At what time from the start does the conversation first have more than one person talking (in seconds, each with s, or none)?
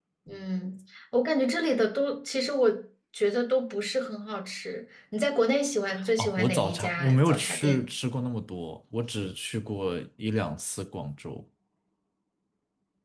6.2 s